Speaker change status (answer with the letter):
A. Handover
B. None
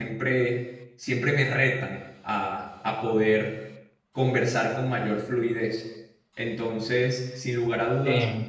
B